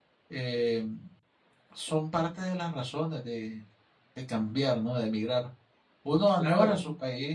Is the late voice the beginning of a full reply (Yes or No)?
No